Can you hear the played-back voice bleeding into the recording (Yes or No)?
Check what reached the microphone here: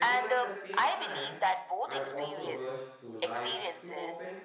Yes